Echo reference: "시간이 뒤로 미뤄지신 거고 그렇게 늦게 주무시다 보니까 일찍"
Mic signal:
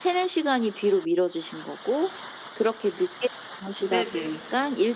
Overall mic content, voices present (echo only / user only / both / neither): both